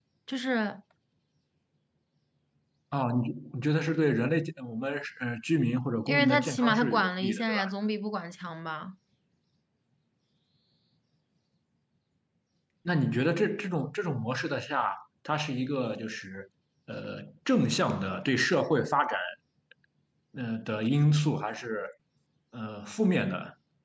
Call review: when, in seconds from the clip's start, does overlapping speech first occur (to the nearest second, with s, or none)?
6 s